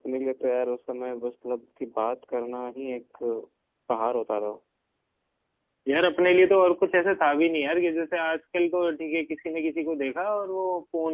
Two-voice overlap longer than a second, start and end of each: none

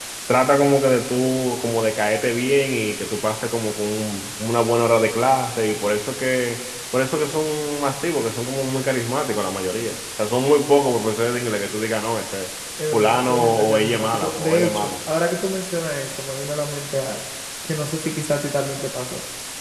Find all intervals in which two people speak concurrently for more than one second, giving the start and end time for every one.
12.9-14.9

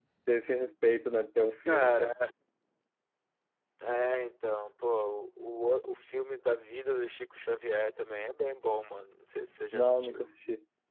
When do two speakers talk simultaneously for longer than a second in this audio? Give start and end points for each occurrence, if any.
none

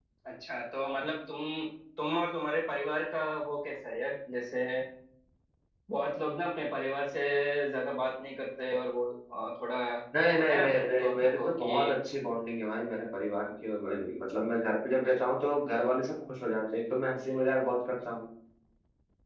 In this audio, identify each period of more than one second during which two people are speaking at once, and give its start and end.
10.4-12.0

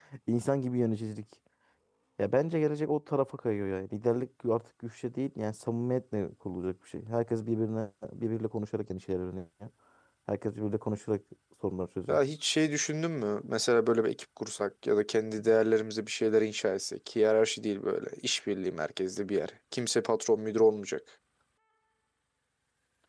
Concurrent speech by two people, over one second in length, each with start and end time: none

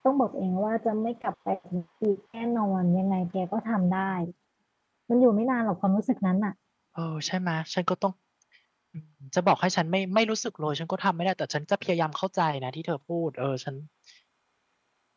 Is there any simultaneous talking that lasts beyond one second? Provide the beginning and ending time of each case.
none

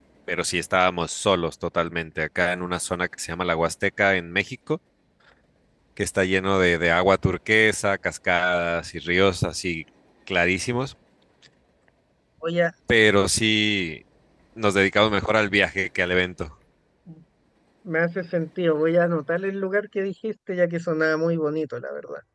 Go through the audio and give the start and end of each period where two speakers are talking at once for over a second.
none

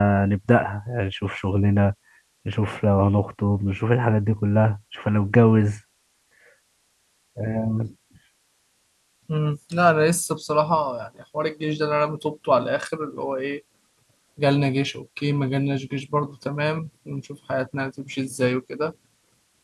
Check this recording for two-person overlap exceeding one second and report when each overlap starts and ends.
none

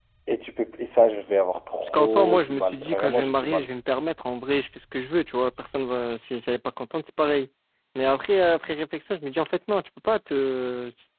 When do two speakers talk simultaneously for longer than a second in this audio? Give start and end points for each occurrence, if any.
1.9-3.7

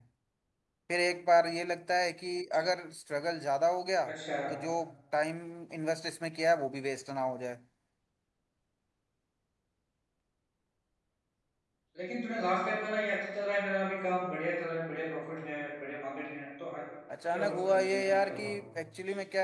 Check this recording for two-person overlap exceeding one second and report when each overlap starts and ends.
17.3-18.6

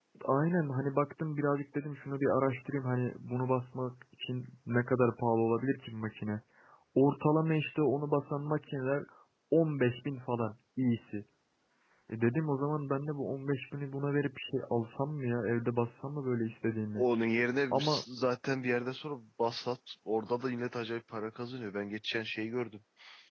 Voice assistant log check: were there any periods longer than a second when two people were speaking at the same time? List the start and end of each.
none

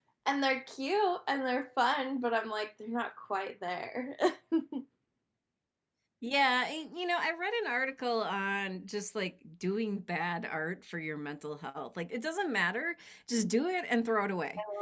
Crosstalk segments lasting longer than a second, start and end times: none

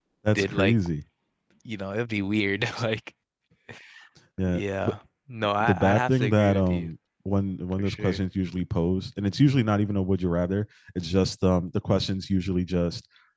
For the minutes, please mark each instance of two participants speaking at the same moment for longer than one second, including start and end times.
5.6-6.9

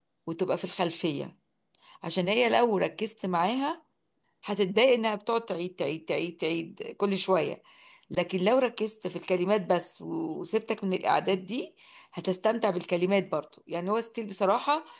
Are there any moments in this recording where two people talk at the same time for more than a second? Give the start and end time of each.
none

